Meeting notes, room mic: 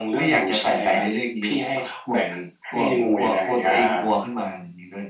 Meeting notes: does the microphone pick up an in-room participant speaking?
No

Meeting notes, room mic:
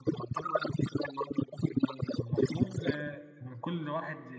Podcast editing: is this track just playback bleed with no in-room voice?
No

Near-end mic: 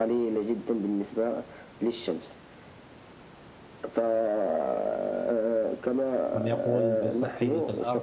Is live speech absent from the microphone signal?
No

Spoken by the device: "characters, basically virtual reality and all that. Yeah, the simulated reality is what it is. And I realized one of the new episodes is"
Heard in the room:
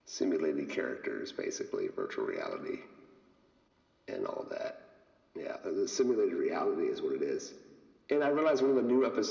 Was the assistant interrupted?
No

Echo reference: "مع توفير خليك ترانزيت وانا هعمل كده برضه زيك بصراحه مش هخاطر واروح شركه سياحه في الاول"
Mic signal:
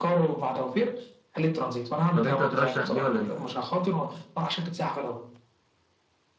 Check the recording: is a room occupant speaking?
Yes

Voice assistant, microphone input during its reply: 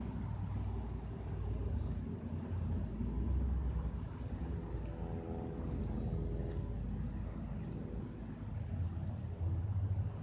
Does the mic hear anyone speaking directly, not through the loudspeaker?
No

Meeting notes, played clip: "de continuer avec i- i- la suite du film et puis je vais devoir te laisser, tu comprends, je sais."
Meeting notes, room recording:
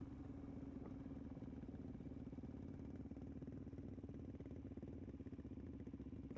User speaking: No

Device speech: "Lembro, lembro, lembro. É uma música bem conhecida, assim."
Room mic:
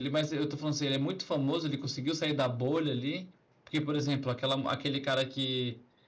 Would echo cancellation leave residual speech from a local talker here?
Yes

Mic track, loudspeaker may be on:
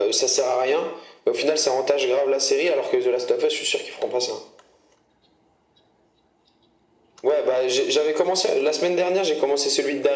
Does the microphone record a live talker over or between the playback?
No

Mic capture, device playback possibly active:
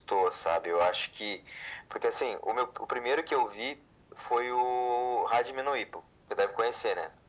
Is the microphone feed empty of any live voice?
Yes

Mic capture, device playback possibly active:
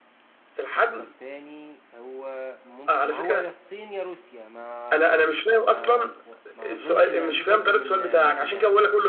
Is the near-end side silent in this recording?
No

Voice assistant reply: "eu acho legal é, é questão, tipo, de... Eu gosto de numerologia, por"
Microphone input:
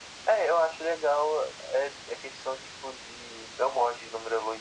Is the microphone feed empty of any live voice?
Yes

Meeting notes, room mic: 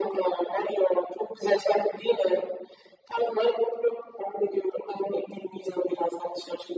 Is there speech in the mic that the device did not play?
No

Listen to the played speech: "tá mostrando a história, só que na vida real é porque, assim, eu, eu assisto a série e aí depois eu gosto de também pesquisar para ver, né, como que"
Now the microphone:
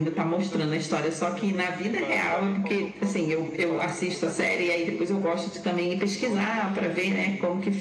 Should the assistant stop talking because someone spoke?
Yes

